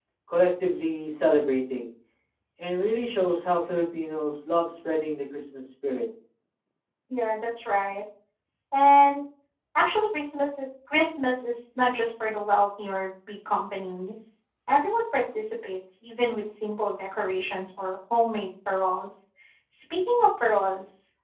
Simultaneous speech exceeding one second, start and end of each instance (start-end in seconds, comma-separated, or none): none